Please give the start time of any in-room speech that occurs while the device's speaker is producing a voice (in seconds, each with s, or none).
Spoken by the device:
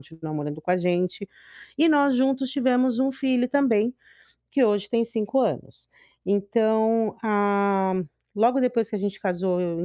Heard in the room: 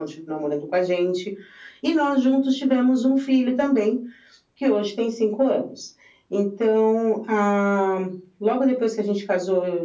none